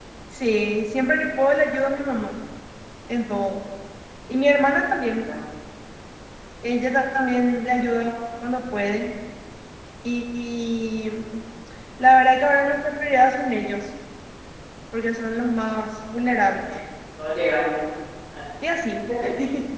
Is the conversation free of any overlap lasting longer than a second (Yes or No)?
Yes